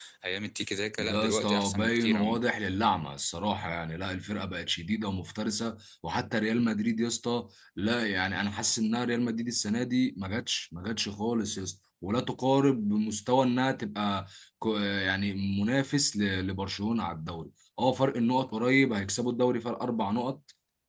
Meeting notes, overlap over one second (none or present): present